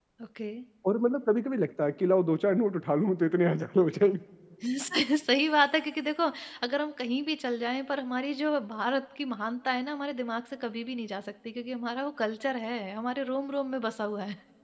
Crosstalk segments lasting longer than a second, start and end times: none

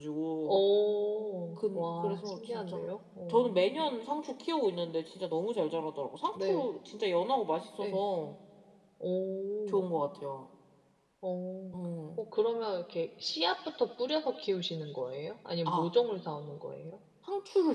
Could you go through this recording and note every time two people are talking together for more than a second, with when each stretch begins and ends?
1.6-2.9

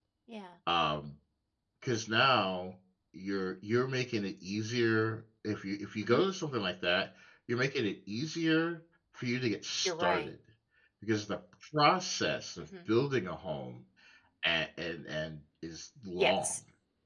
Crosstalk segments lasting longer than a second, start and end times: none

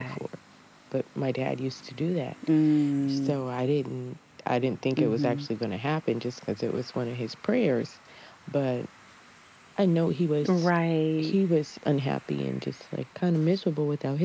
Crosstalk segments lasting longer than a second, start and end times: none

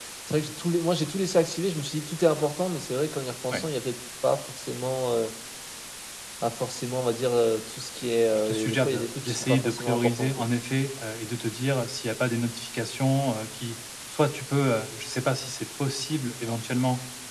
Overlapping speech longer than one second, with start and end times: 8.4-10.5

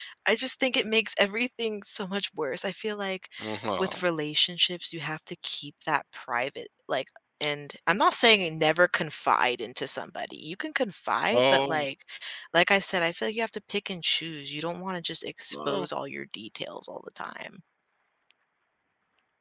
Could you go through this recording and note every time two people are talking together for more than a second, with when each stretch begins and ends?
none

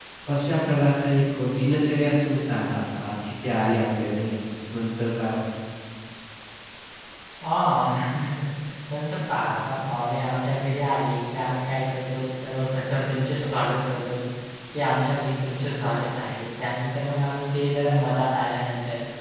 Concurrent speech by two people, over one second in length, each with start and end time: none

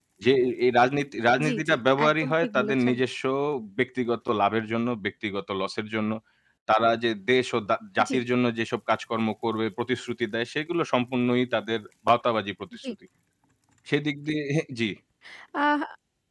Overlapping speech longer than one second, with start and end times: 1.4-2.9

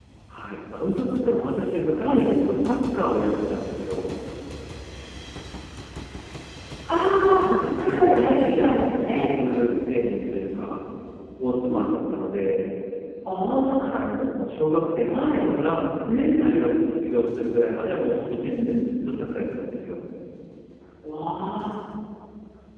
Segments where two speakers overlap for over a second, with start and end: 7.3-9.2

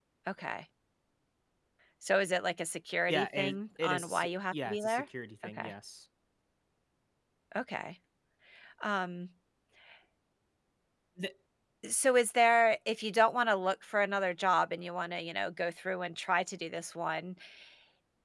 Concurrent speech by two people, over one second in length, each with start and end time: 3.1-5.1

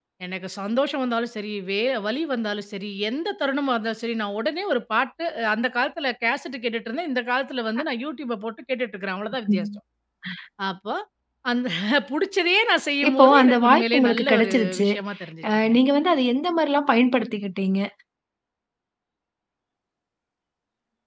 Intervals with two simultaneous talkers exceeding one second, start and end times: 13.1-14.9

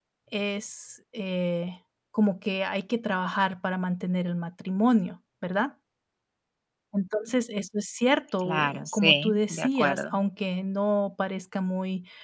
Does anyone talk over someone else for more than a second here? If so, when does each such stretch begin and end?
8.4-10.1

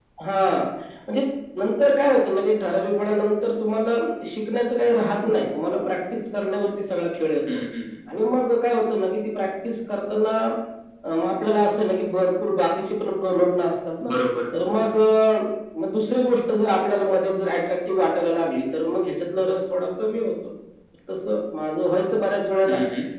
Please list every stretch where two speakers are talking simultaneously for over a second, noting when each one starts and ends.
none

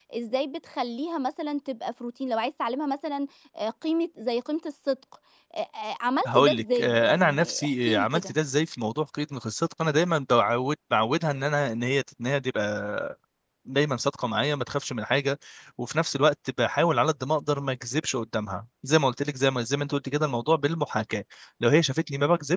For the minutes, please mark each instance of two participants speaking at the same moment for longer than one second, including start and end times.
6.2-8.3

